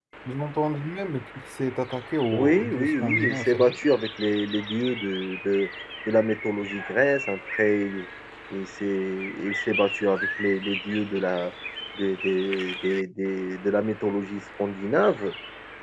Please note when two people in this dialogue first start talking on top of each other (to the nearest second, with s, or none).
2 s